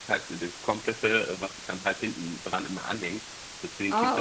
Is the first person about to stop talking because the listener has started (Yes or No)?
No